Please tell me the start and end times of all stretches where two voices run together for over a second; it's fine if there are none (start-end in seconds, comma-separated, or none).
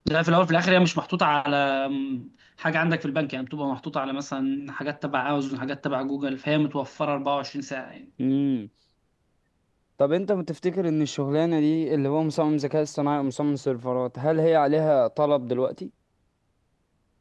none